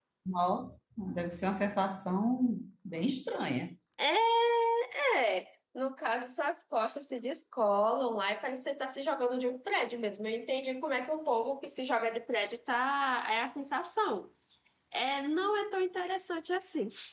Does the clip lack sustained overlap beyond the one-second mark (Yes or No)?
Yes